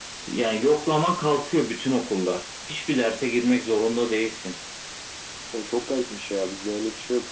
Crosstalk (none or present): none